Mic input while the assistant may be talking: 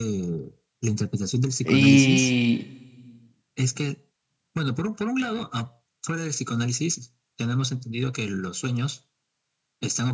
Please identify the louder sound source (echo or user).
user